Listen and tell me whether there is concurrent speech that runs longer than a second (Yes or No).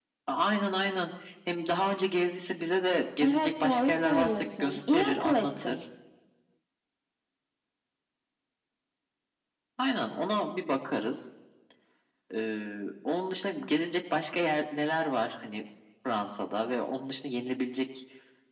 Yes